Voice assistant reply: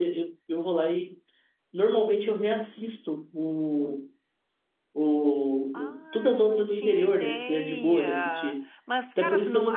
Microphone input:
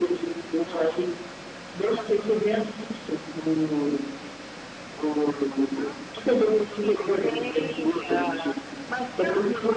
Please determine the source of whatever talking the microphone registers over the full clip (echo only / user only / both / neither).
echo only